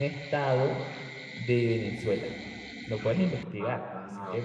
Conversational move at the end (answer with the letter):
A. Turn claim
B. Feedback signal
A